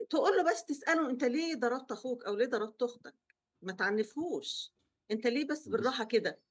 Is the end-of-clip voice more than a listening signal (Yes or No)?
No